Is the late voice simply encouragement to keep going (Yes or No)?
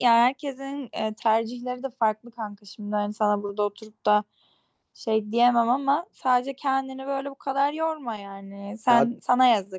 Yes